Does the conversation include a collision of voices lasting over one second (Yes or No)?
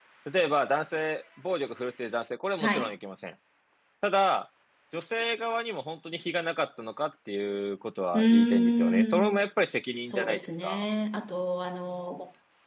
Yes